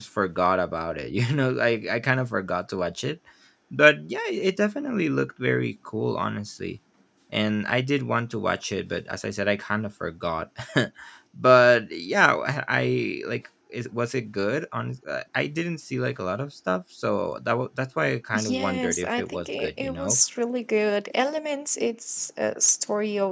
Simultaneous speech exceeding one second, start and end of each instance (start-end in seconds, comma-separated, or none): 18.3-20.2